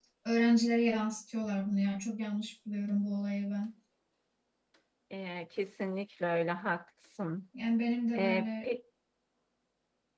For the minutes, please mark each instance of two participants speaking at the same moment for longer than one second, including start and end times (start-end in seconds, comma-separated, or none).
none